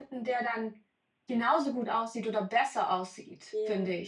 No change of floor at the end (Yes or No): No